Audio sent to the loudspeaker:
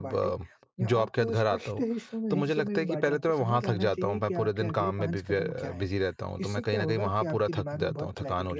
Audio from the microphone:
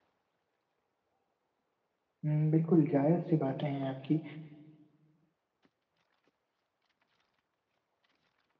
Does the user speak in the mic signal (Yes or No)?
Yes